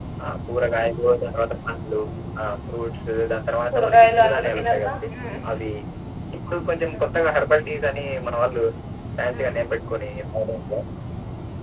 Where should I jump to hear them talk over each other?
3.7 s

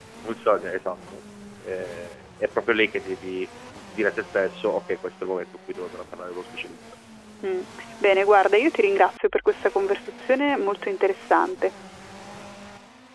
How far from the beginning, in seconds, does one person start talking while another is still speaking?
none

